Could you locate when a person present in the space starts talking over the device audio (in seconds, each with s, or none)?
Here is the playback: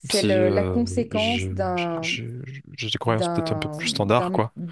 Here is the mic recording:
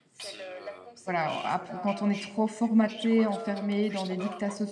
1.0 s